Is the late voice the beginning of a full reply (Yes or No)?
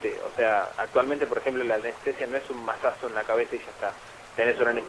No